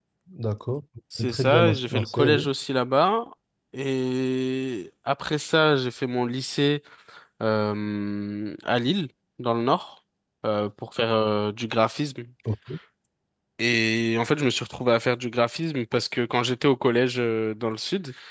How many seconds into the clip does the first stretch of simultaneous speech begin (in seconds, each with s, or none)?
1.3 s